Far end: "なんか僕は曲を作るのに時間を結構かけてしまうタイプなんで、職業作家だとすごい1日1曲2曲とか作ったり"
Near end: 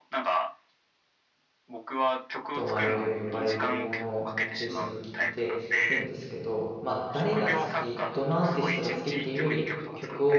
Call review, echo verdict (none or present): present